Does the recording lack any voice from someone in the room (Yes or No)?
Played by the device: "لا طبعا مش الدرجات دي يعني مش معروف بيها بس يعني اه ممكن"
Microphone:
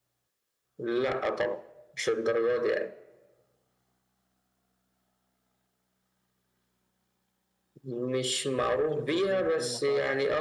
No